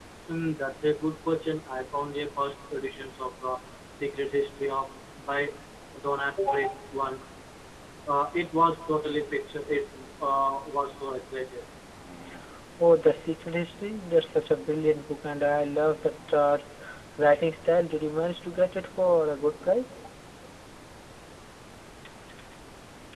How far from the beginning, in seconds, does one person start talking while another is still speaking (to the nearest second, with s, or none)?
none